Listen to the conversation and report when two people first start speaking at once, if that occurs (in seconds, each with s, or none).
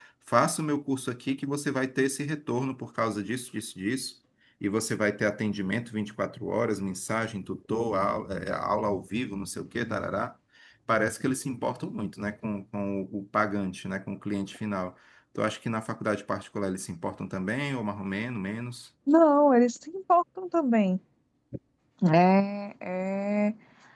none